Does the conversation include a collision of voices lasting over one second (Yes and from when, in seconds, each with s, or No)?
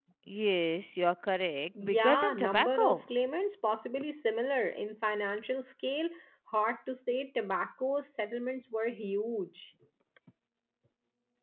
Yes, from 1.8 s